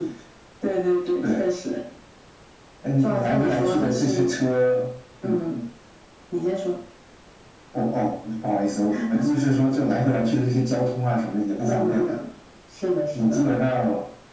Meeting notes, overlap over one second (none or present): present